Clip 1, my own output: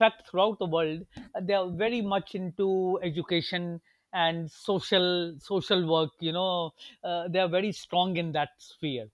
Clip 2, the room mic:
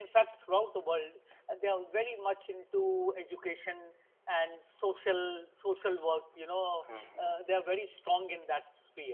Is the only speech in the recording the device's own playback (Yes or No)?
No